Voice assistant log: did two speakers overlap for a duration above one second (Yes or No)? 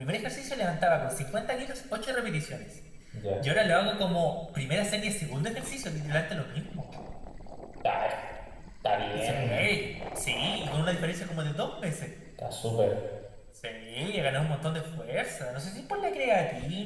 No